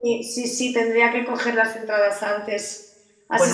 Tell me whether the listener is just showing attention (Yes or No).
Yes